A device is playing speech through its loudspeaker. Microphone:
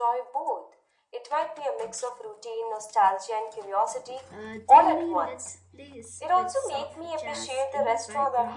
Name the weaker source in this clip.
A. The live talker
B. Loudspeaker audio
A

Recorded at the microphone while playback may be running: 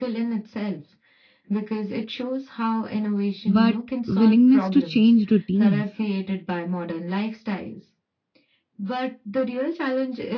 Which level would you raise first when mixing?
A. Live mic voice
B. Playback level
B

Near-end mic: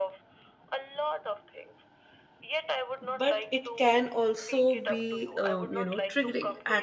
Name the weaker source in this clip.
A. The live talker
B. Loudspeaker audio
B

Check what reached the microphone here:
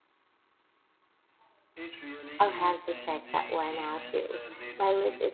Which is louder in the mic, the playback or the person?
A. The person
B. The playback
A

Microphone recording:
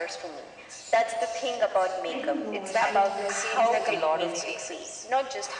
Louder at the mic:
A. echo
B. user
A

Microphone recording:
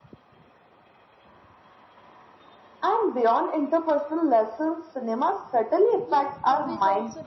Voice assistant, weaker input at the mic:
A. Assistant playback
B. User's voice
B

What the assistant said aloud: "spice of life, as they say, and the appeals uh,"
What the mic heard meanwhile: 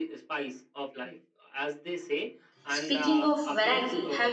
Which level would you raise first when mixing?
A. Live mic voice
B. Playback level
B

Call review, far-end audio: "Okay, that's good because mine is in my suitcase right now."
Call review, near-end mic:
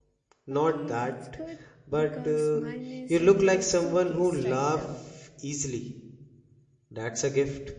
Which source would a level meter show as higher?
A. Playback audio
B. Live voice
B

